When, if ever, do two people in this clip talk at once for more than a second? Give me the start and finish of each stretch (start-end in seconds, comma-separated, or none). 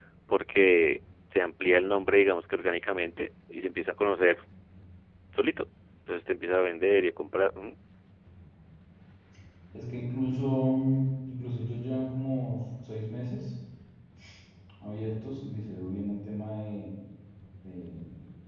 none